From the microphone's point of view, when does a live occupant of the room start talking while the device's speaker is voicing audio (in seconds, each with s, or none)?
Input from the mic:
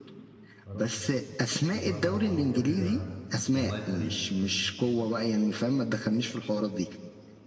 0.6 s